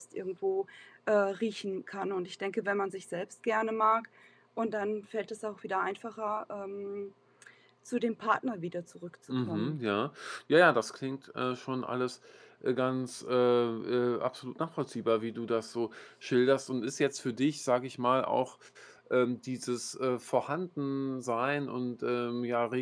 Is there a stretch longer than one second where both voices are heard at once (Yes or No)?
No